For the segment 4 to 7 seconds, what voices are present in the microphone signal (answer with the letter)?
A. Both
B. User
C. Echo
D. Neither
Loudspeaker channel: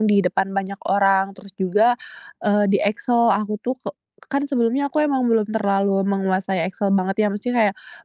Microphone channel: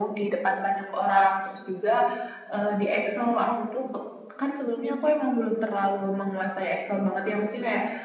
C